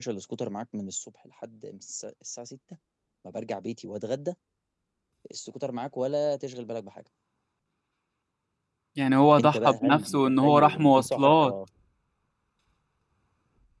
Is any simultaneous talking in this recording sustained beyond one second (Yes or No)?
Yes